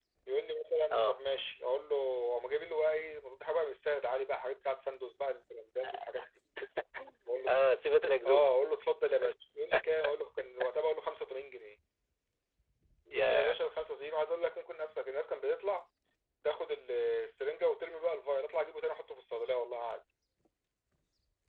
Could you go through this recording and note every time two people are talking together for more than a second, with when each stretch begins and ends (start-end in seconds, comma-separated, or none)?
none